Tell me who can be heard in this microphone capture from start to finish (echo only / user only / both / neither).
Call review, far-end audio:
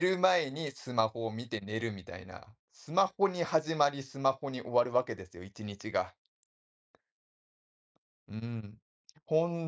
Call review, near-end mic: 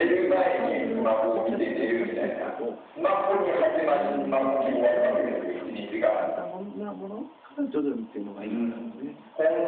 both